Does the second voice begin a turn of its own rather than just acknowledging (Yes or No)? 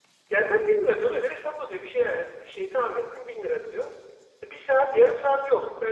No